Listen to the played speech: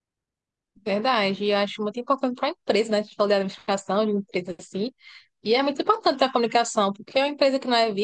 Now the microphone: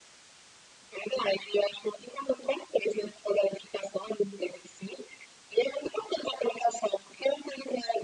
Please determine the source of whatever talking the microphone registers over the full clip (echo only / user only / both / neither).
echo only